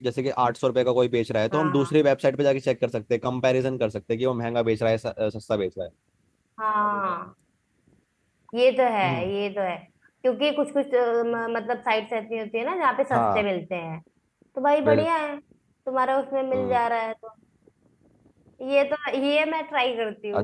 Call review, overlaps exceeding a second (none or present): none